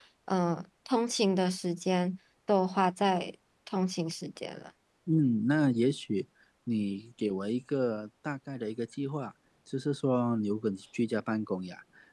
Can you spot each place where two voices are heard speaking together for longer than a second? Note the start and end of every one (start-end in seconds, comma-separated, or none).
none